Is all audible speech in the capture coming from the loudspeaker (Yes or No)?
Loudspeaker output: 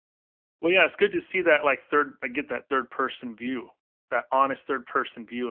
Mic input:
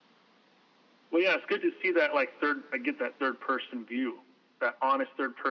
Yes